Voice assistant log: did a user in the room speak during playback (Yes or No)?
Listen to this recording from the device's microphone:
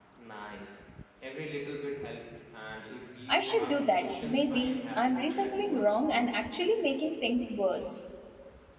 Yes